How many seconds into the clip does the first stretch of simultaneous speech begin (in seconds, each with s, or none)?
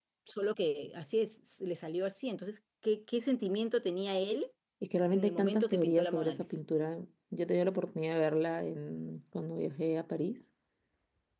5.1 s